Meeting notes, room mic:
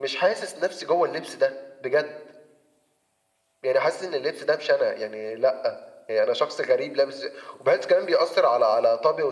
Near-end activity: none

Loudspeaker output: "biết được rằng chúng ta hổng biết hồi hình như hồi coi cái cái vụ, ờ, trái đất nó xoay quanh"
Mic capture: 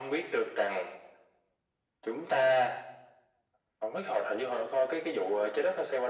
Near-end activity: none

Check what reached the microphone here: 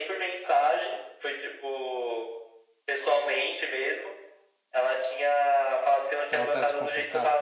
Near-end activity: present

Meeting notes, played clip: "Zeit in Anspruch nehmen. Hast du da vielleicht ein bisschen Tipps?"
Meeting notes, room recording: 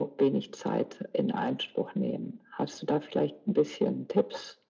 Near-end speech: none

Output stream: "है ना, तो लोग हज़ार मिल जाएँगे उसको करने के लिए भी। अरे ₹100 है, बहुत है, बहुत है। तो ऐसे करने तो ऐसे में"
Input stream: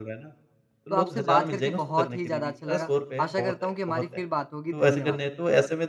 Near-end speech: present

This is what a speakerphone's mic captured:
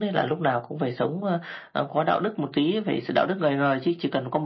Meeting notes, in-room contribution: none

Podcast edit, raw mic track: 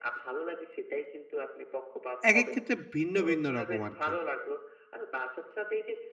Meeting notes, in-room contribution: present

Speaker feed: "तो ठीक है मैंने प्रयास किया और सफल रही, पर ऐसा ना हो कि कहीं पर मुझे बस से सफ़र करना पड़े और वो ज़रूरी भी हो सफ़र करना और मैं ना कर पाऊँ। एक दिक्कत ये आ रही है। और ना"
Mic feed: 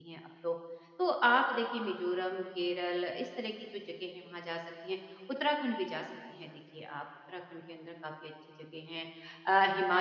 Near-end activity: present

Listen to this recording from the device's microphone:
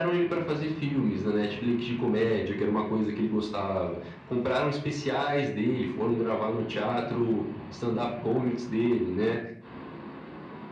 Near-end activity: none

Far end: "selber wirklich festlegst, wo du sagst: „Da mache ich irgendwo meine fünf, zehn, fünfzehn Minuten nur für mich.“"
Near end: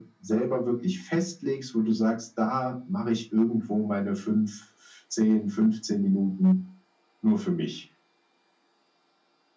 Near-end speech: none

